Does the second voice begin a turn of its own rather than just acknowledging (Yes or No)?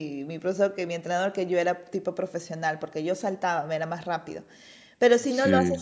No